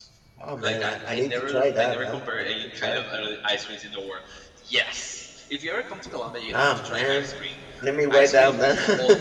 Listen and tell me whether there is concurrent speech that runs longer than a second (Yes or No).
Yes